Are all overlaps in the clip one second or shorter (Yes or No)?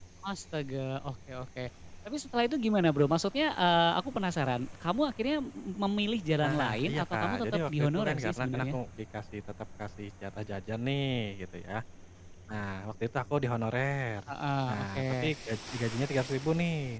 No